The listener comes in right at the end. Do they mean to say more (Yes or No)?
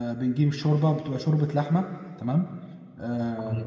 Yes